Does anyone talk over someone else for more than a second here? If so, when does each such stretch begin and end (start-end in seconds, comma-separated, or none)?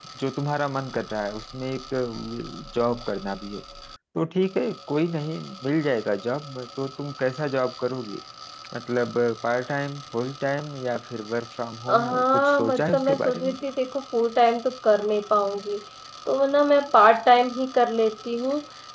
11.9-13.6